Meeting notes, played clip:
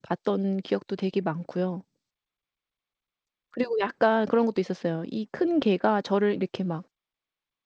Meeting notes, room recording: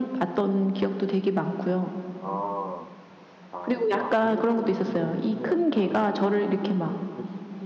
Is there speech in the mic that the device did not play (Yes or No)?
Yes